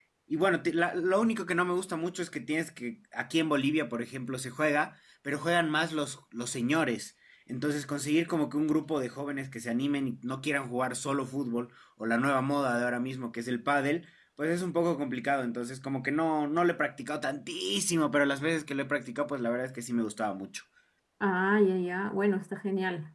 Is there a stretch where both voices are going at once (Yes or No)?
No